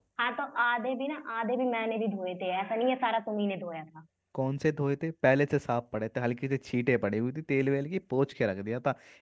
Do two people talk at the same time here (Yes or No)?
No